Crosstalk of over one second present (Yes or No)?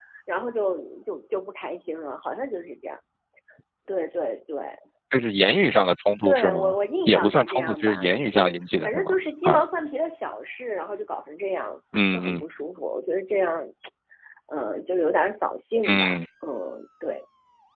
Yes